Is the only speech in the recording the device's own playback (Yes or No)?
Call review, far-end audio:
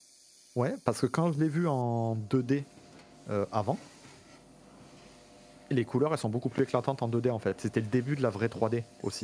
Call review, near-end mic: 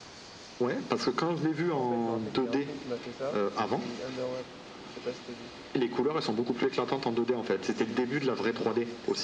No